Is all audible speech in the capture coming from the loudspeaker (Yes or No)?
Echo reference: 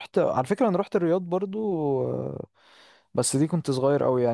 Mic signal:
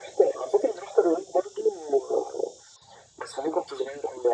Yes